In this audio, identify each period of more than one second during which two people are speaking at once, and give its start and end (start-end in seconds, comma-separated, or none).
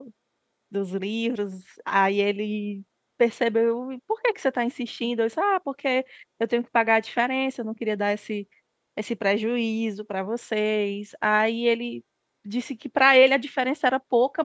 none